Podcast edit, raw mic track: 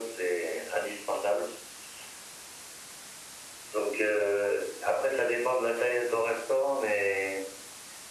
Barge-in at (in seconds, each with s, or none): none